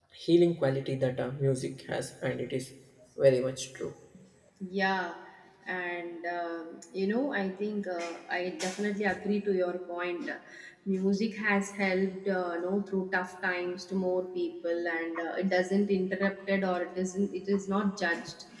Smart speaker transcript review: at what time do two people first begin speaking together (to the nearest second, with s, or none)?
none